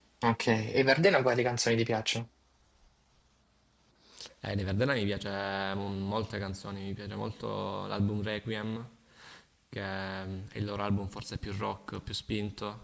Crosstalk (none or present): none